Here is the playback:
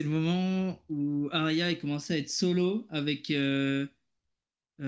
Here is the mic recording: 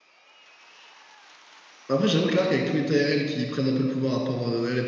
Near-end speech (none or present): present